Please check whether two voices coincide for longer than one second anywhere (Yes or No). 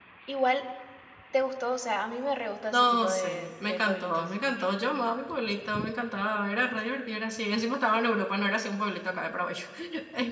Yes